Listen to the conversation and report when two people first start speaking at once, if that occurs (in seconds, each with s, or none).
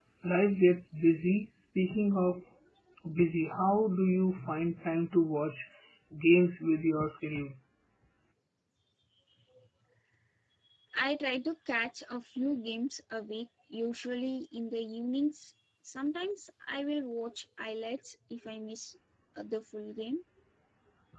none